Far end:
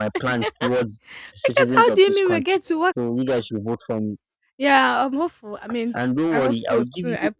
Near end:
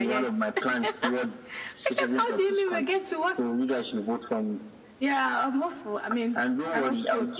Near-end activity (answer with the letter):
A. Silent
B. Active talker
A